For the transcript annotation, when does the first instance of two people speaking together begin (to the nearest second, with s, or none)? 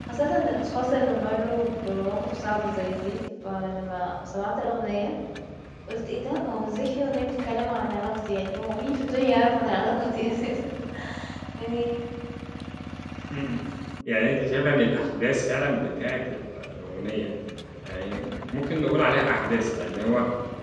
none